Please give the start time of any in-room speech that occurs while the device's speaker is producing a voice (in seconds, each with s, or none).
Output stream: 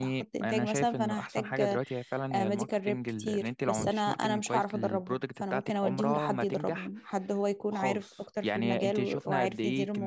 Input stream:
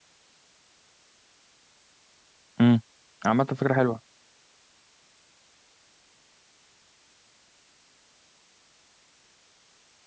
2.6 s